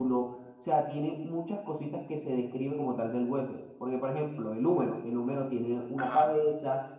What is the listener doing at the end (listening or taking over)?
listening